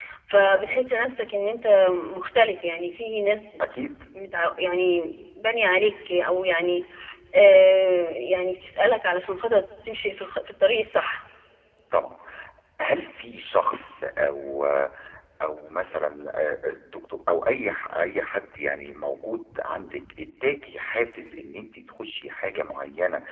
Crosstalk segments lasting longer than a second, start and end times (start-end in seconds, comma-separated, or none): none